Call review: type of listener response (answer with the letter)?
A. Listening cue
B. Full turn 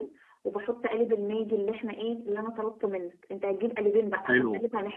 A